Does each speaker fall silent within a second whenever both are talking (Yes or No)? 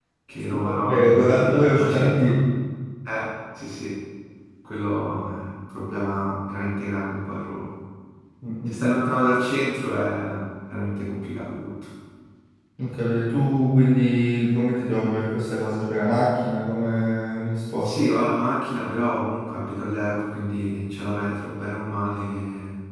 No